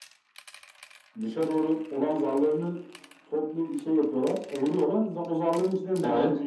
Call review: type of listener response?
listening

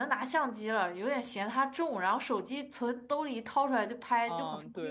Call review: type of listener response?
taking over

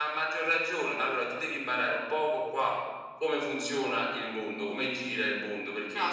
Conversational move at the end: taking over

